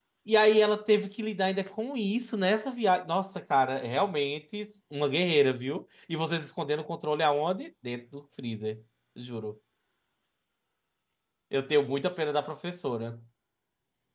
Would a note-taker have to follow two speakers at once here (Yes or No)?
No